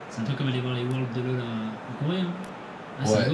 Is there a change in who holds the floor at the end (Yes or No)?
Yes